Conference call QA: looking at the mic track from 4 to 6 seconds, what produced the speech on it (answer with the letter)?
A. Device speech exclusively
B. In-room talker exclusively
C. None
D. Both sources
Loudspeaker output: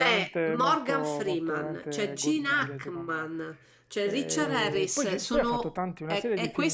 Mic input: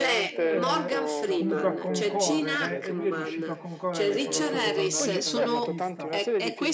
D